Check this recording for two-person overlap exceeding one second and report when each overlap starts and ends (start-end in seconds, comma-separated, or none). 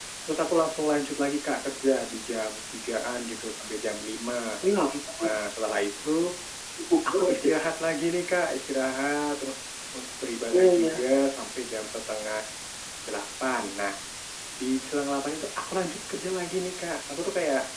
none